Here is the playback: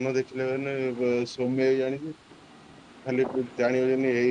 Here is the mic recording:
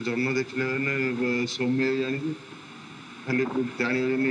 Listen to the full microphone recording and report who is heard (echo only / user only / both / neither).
echo only